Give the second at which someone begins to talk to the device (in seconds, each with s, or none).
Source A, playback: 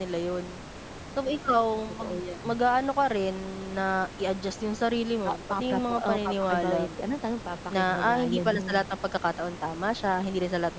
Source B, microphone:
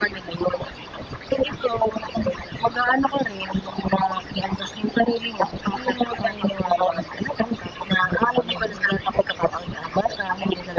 none